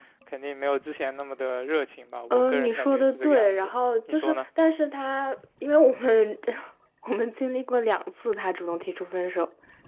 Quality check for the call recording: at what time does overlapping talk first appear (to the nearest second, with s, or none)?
2 s